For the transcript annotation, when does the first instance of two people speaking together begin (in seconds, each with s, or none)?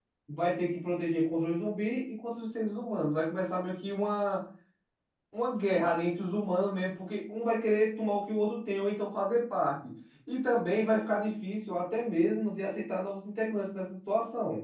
none